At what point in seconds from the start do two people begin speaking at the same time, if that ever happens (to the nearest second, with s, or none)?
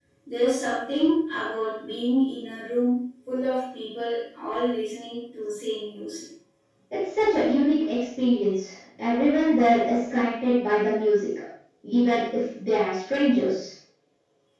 none